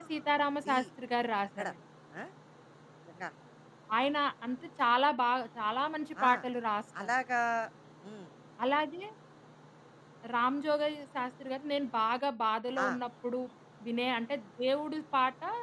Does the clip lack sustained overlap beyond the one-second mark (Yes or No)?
Yes